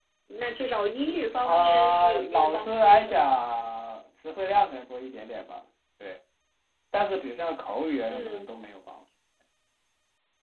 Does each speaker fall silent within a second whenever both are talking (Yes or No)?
No